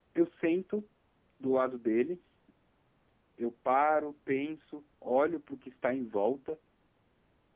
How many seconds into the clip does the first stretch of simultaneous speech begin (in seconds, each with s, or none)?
none